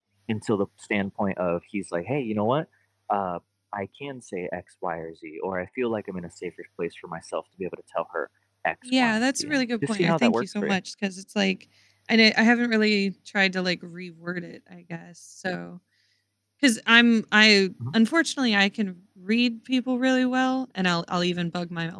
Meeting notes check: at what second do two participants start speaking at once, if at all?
8.9 s

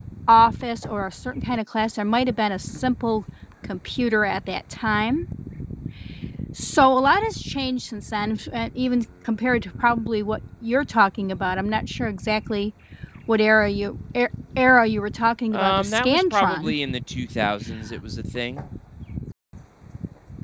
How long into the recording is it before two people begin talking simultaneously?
15.5 s

